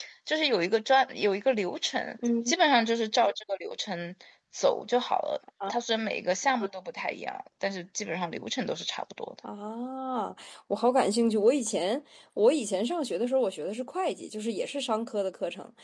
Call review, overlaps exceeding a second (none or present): none